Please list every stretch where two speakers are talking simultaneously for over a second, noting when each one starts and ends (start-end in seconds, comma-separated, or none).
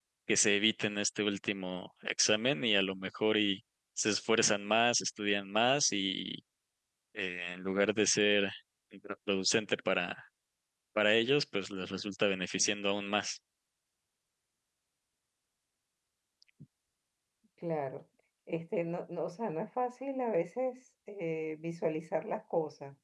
none